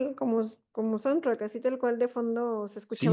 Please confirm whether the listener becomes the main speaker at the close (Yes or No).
Yes